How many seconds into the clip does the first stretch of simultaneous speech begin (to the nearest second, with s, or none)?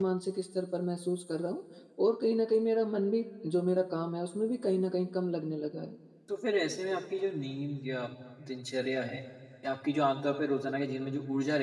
none